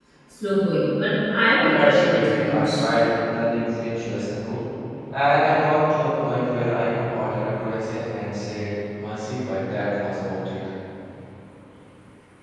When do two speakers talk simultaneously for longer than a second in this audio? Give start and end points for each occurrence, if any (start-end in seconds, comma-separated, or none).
1.6-2.8